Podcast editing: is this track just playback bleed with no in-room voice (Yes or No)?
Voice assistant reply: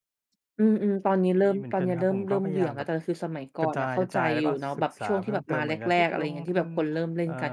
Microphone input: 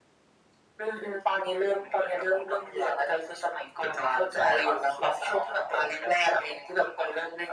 Yes